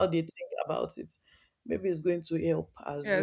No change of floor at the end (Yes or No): No